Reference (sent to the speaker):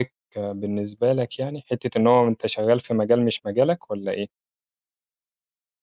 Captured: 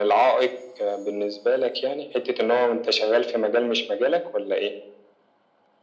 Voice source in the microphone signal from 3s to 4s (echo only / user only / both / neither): echo only